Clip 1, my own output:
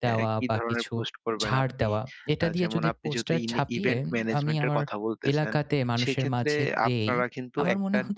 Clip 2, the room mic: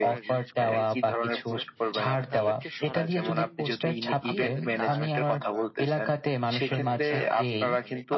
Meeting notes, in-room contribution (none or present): present